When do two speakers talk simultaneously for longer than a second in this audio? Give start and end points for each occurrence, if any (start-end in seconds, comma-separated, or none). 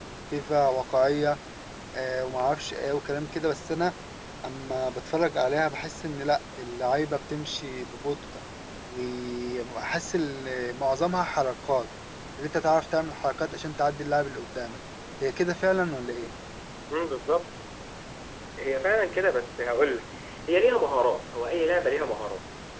none